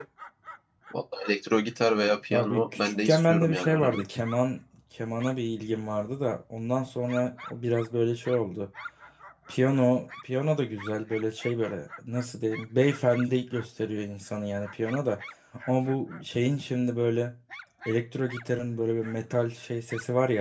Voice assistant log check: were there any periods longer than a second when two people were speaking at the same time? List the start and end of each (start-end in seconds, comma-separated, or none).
2.3-4.1